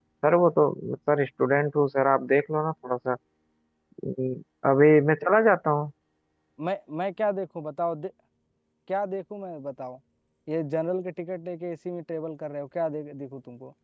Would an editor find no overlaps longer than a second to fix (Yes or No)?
Yes